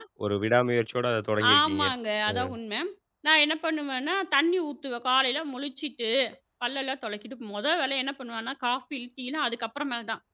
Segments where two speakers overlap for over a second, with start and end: none

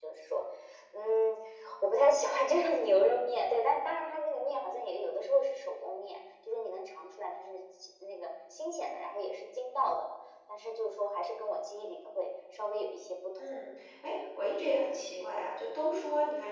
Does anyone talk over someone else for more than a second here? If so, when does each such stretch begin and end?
none

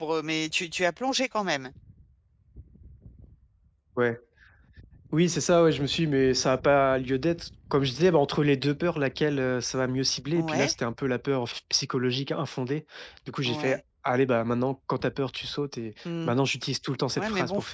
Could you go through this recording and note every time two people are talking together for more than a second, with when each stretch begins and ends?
none

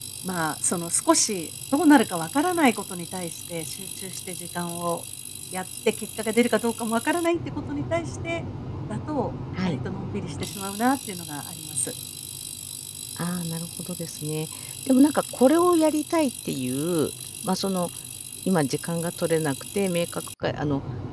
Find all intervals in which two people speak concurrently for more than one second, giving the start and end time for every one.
none

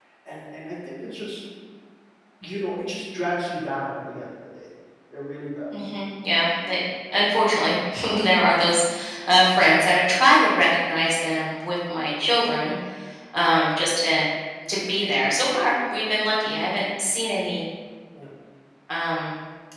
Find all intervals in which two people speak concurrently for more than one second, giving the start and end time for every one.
none

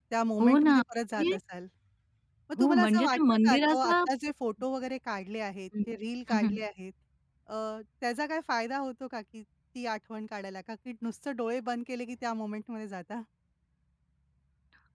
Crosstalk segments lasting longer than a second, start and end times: 2.6-3.9

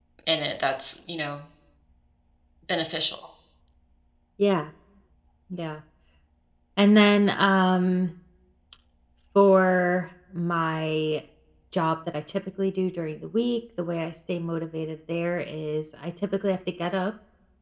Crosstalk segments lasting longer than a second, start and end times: none

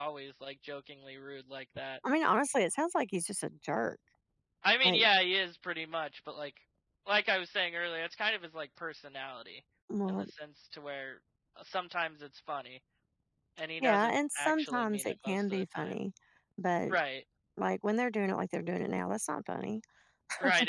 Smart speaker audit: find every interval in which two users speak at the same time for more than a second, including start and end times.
13.8-15.9

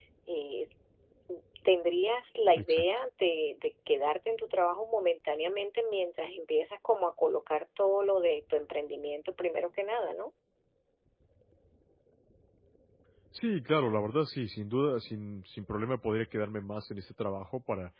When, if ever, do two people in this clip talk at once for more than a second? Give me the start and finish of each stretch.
none

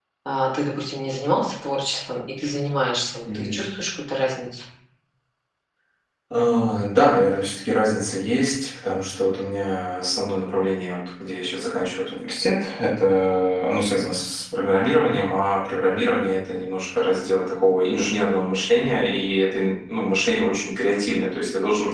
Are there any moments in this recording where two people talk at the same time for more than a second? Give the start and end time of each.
none

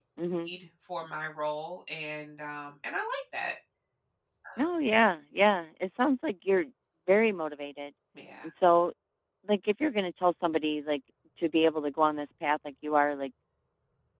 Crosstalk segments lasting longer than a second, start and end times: none

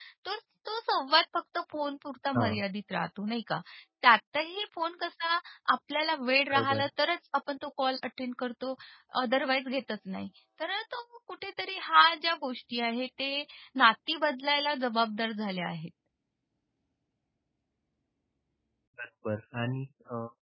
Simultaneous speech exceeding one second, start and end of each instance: none

